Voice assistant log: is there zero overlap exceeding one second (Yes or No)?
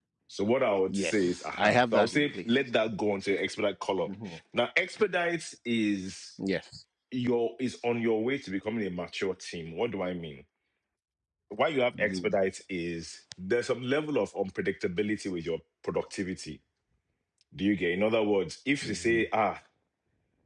No